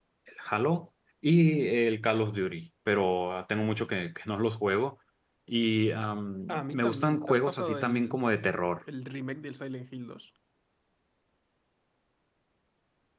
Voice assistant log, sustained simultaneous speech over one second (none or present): present